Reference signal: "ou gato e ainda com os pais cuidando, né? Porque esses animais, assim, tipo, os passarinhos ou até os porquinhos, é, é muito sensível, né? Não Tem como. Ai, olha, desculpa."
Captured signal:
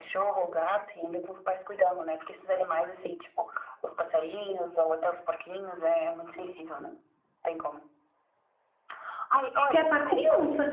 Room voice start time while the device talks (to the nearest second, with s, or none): 10 s